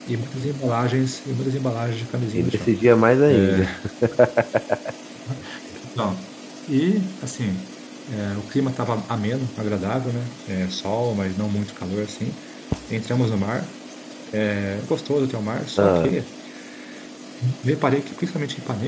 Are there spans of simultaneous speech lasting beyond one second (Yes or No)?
No